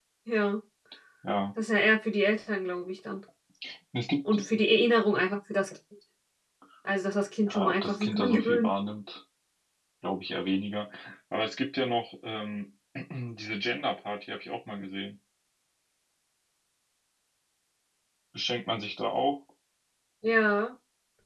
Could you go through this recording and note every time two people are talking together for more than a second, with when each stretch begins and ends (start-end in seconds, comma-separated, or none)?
7.4-8.7